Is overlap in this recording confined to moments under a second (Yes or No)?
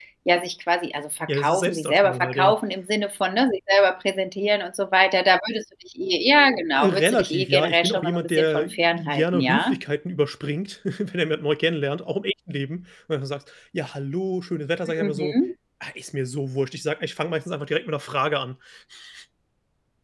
No